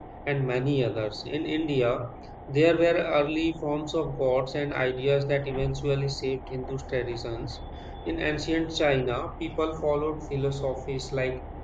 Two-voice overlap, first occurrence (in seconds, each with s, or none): none